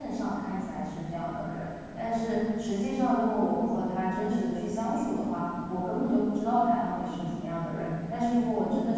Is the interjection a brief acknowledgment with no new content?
Yes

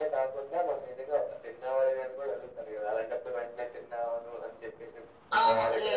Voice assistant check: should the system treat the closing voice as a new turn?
Yes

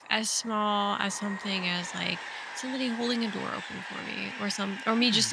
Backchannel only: Yes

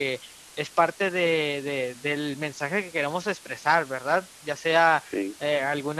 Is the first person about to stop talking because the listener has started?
No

